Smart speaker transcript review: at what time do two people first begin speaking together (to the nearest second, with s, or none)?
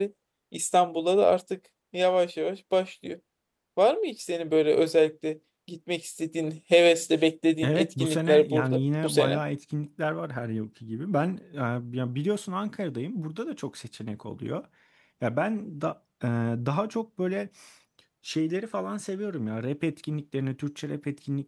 8 s